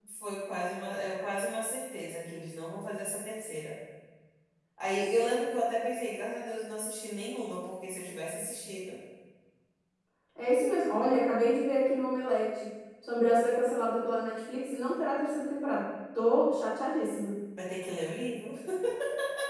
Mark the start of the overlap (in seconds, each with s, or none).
none